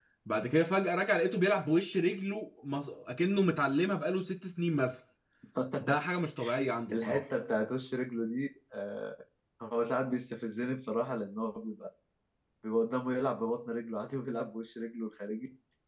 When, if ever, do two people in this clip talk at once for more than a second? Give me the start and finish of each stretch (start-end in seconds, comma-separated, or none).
none